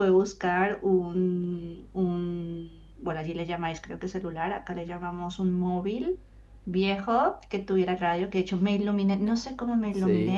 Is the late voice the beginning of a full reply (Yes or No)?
No